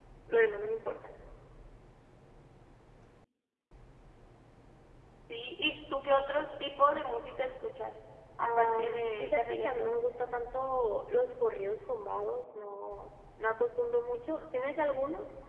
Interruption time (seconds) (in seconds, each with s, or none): 8.4 s